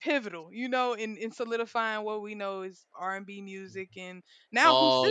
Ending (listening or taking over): listening